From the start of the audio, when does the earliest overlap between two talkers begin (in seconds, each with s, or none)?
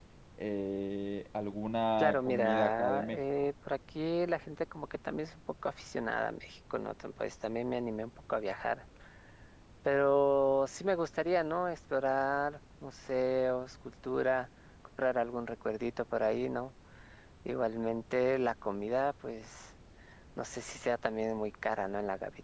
2.0 s